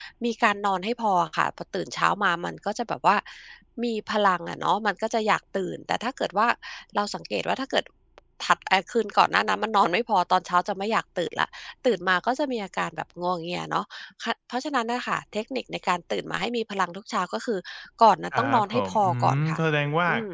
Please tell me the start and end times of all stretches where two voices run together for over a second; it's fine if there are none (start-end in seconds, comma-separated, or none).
18.4-19.6